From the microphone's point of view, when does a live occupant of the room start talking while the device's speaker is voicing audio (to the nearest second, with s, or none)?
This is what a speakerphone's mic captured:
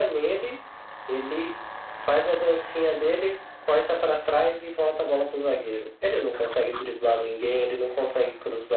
none